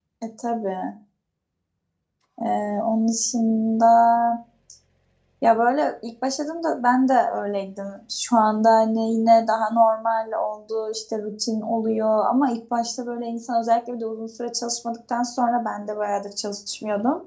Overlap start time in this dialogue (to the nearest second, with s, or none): none